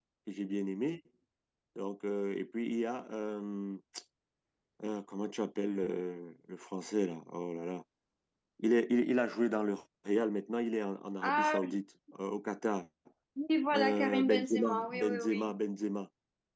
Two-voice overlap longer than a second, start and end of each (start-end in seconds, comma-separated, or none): 13.7-15.5